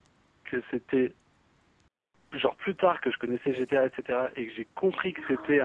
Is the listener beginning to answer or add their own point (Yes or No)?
No